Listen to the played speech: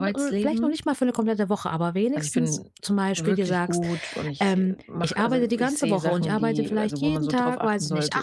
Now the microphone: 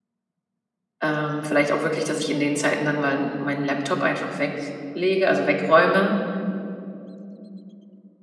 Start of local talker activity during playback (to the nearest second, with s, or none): 1 s